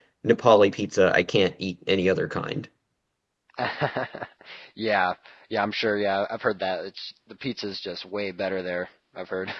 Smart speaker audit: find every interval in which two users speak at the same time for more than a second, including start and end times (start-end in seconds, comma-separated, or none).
none